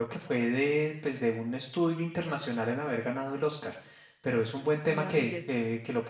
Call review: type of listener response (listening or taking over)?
listening